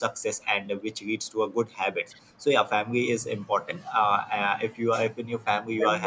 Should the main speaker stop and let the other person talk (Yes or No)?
Yes